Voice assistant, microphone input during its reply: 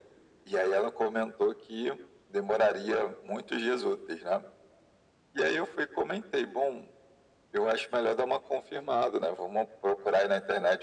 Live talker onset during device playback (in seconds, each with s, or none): none